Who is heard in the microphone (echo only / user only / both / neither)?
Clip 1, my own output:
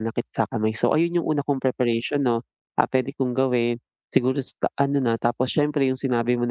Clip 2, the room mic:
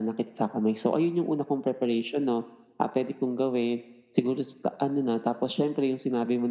echo only